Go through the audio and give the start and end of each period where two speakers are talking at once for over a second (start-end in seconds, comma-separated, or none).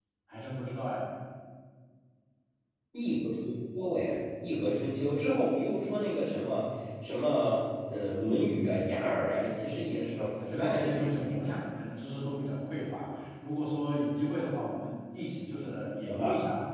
9.6-11.6